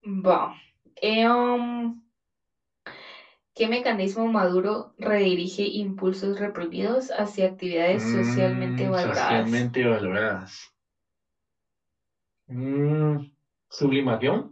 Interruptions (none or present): present